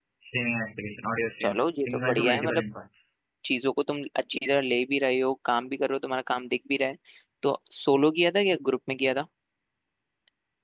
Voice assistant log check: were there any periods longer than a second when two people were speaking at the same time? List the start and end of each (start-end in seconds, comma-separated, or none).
1.4-2.6